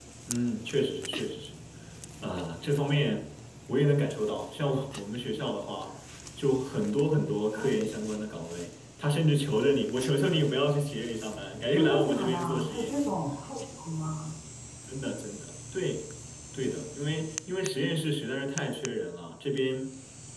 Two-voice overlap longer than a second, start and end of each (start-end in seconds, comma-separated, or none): 11.7-13.0